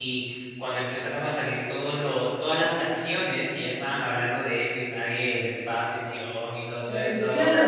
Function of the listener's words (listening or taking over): taking over